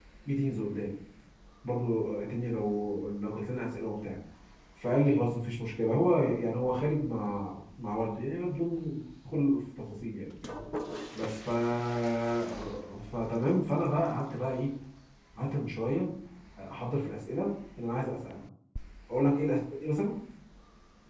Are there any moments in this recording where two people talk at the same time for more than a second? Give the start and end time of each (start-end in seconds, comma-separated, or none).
none